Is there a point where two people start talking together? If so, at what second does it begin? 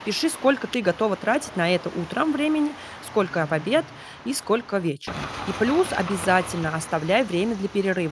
none

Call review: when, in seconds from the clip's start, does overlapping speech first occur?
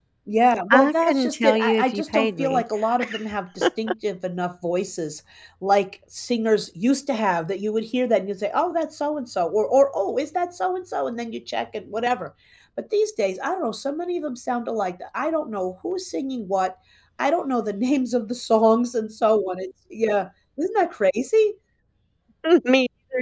0.7 s

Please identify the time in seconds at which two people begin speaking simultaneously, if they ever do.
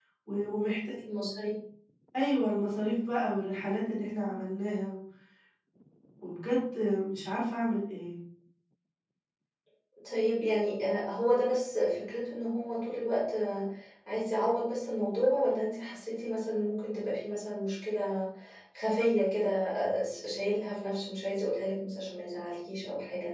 none

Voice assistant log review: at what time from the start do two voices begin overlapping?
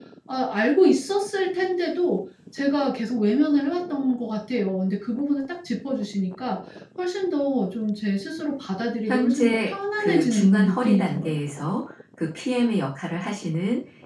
9.1 s

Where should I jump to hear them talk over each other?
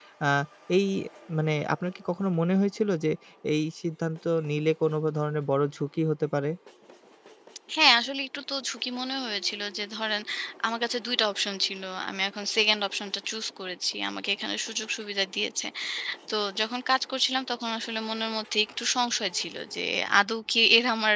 none

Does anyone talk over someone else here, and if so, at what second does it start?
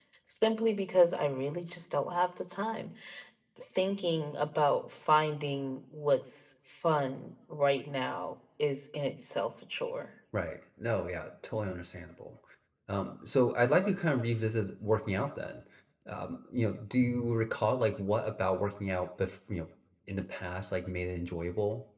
none

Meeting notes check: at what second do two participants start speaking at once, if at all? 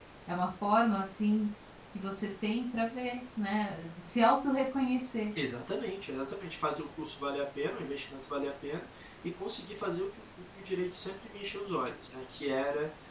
none

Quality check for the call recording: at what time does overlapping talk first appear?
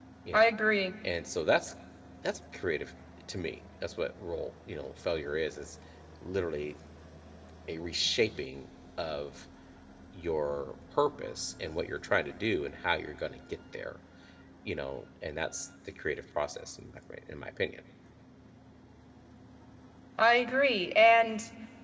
none

